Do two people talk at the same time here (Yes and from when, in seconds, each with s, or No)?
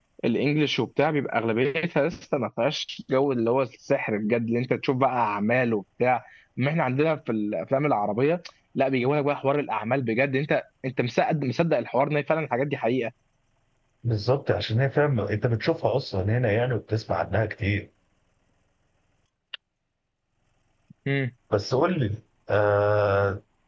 No